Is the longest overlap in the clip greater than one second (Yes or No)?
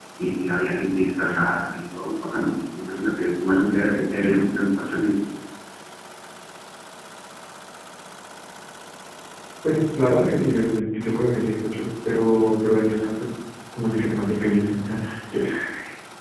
No